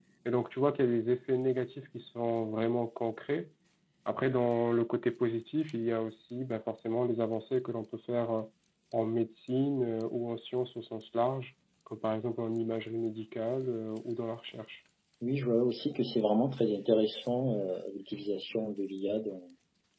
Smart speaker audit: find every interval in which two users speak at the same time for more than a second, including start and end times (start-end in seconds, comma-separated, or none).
none